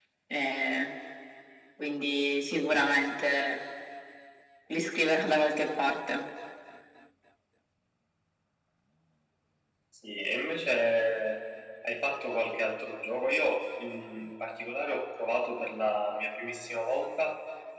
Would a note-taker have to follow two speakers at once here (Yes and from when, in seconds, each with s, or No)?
No